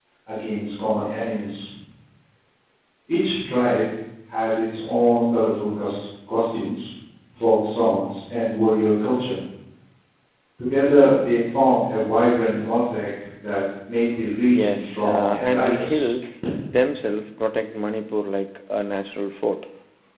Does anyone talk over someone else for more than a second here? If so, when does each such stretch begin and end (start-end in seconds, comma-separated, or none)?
14.5-16.1